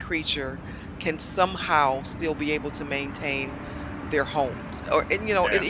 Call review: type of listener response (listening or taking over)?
listening